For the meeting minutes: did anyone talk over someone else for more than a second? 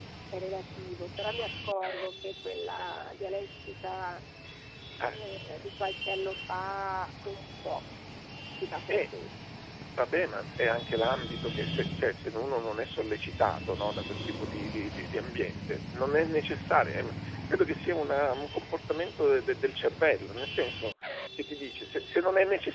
No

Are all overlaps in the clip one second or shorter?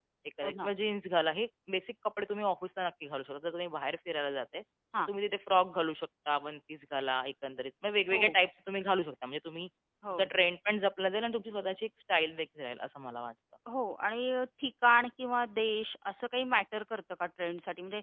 Yes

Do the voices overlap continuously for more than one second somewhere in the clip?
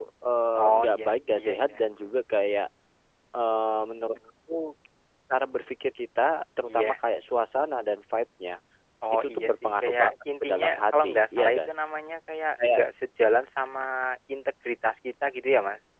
Yes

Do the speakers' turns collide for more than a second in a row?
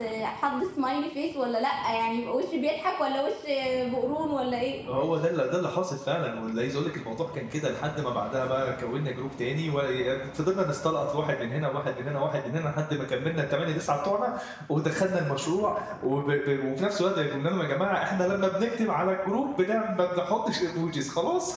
No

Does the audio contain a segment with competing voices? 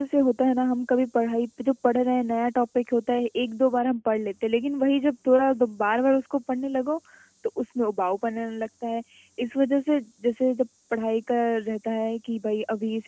No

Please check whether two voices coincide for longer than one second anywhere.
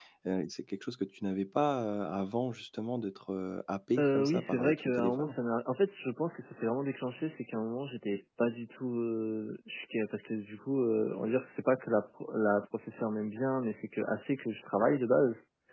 Yes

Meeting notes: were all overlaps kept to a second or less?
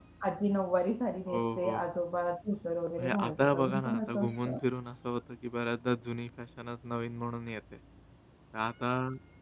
No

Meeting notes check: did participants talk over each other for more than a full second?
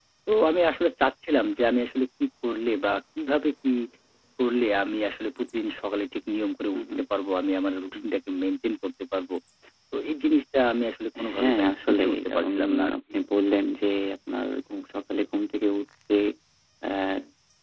Yes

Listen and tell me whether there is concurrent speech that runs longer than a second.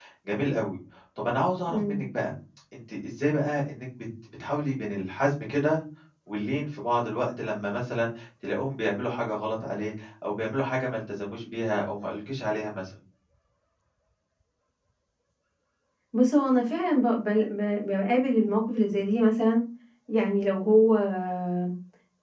No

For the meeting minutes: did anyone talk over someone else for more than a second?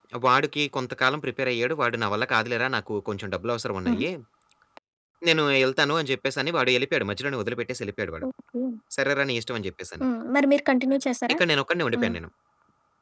No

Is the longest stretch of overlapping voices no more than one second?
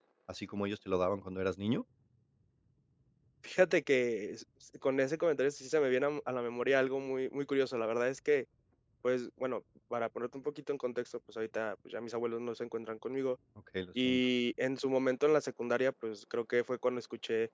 Yes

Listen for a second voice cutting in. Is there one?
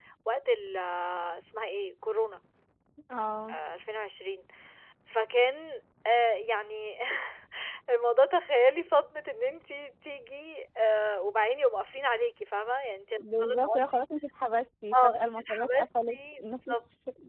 Yes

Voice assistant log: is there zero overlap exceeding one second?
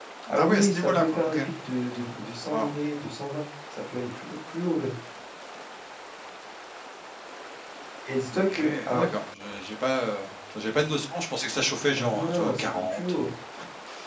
No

